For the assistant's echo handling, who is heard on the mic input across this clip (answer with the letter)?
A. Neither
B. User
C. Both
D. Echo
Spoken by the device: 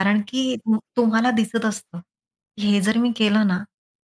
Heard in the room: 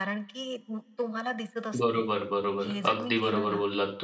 C